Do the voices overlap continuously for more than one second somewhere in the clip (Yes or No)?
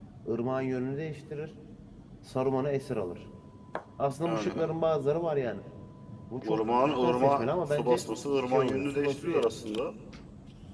Yes